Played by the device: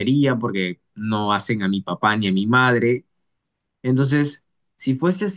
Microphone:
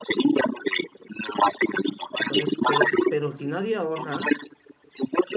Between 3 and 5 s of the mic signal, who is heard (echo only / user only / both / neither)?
both